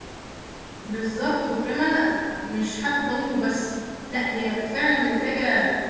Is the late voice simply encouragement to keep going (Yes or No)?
Yes